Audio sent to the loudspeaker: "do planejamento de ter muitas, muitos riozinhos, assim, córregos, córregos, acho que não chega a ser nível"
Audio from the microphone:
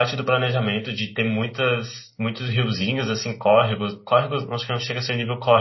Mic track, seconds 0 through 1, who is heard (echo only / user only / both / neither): echo only